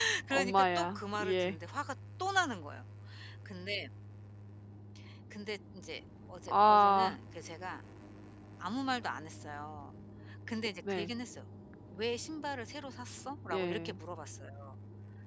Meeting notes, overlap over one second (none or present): present